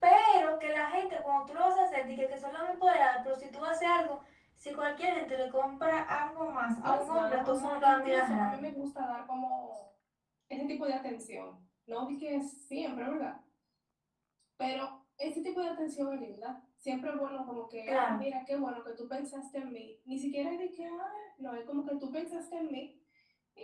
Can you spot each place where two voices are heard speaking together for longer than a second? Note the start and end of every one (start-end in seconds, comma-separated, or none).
6.8-8.6